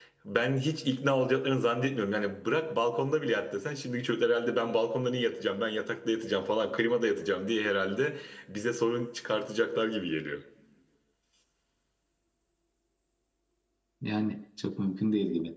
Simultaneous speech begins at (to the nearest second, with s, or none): none